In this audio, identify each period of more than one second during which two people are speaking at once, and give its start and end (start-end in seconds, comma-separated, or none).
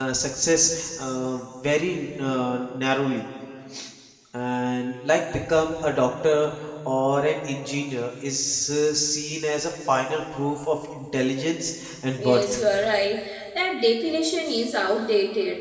none